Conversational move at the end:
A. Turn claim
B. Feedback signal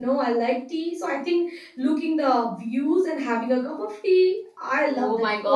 A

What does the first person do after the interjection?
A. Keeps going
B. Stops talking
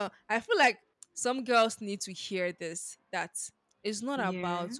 A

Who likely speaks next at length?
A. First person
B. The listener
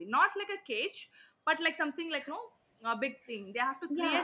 B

